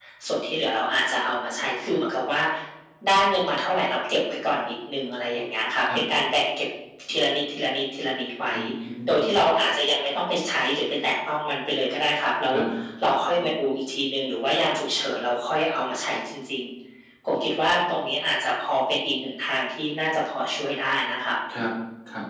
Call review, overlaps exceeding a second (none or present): none